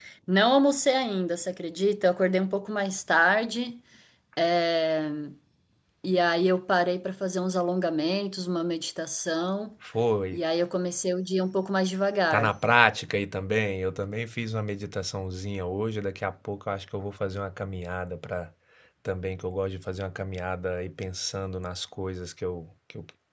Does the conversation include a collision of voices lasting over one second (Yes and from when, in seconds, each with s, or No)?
No